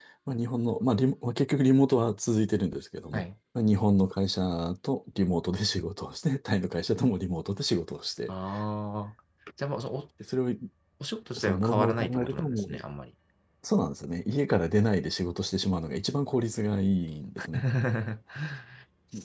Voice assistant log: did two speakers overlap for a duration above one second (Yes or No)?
Yes